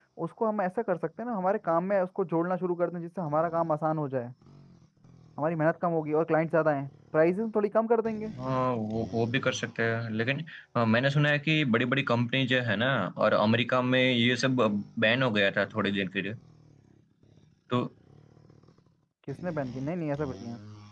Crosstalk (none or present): none